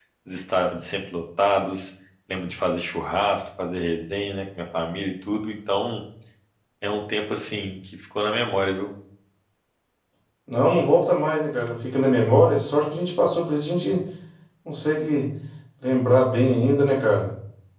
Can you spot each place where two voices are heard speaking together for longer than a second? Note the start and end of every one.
none

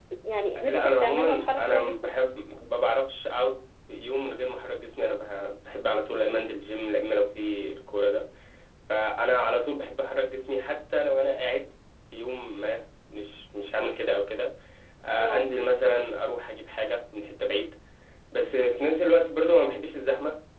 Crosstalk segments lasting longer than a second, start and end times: 0.6-2.1

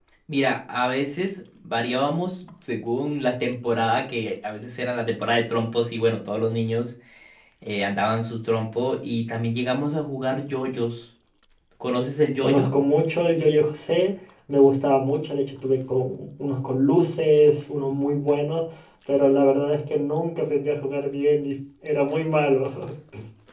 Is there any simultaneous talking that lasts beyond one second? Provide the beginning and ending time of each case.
none

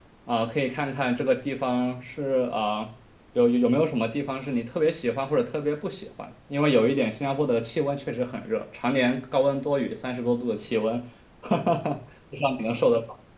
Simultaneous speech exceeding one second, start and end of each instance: none

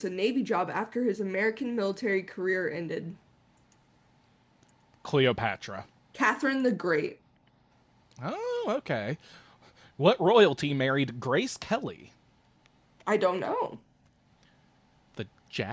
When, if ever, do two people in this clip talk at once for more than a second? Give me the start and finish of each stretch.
none

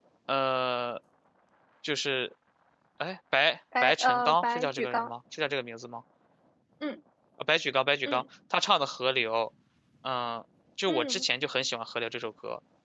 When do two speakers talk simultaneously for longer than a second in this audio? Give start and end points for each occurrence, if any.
3.8-5.1

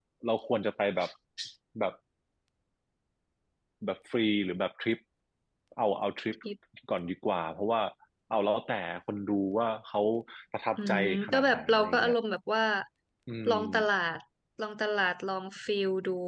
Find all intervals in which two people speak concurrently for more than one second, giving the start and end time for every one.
10.8-12.1

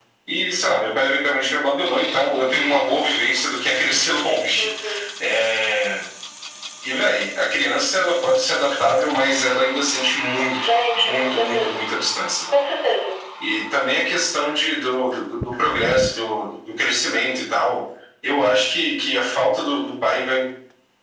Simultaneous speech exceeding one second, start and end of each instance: 10.5-11.8

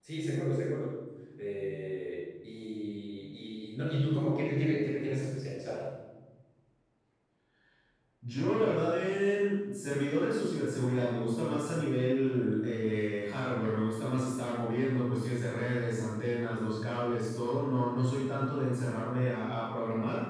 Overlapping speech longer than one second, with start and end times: none

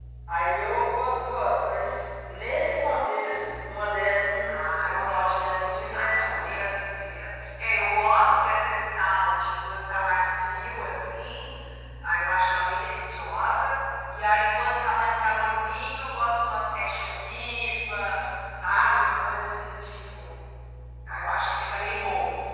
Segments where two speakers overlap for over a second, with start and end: 4.5-6.5

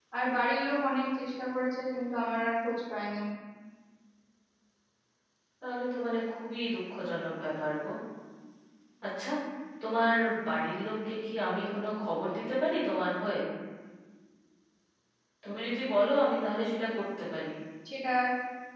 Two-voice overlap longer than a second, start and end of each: none

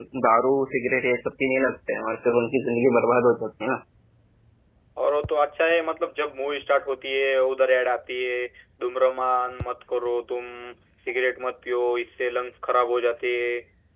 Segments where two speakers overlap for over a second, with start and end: none

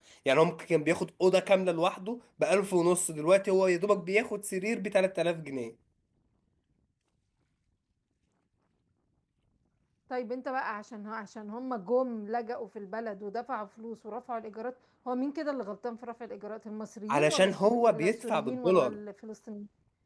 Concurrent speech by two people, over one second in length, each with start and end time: 17.1-18.9

